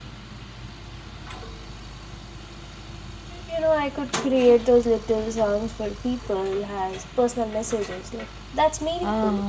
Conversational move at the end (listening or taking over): taking over